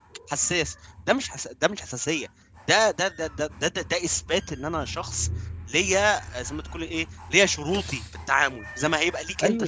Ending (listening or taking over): taking over